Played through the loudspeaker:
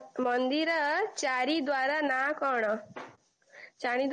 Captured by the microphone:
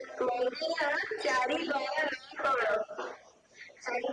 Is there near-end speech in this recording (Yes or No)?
No